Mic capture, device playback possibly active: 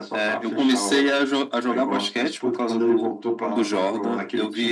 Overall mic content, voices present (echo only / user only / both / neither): echo only